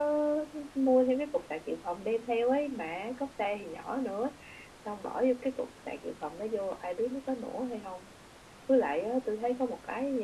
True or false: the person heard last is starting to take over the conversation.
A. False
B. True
A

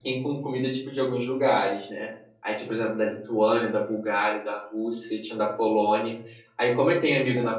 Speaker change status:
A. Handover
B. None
B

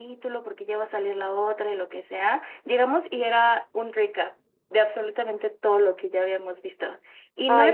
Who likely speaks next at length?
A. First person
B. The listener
A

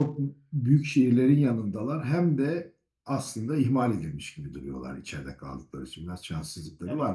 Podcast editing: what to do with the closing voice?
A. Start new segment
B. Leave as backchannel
A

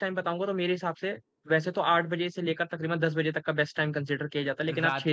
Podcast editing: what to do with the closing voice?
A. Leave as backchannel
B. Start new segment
A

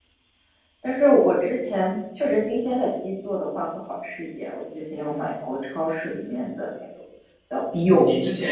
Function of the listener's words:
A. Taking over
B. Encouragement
A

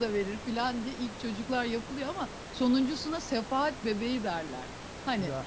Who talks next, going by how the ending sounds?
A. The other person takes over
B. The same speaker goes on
B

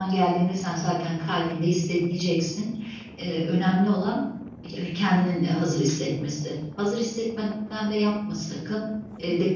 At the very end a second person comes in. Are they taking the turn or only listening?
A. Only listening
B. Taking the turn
A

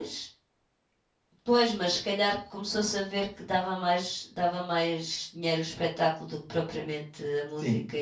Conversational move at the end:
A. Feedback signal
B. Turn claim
B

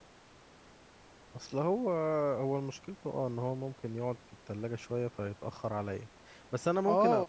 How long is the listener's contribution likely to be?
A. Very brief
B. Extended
B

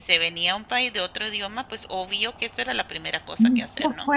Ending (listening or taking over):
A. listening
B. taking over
B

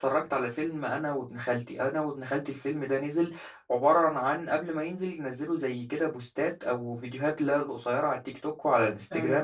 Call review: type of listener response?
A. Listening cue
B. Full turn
A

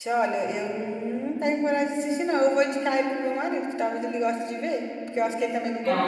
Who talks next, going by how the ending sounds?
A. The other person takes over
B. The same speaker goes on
A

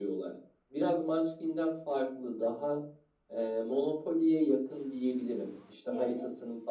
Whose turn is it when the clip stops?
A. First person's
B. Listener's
A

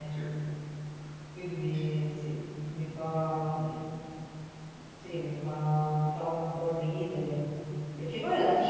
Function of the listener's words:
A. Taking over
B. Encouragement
B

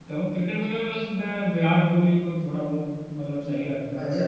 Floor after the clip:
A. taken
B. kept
A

